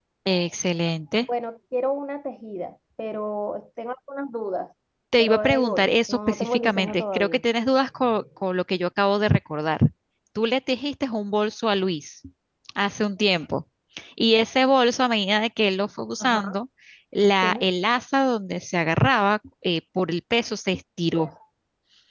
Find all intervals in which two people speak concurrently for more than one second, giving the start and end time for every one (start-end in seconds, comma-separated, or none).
5.2-7.4